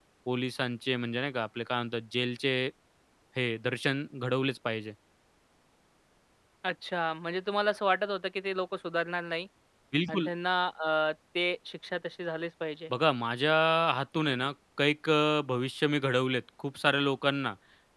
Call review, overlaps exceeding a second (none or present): none